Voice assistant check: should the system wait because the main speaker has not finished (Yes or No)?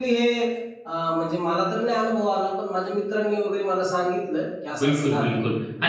No